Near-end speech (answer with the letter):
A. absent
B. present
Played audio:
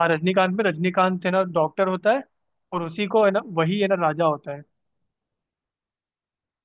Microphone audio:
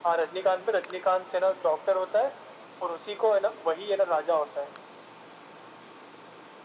A